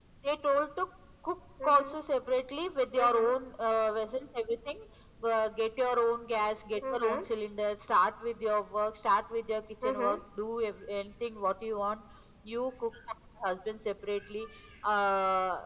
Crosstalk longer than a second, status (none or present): none